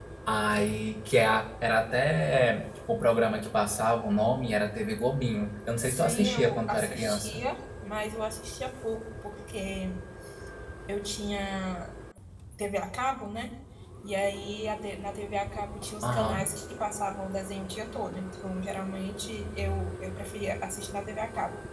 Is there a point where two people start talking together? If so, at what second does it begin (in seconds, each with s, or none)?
5.8 s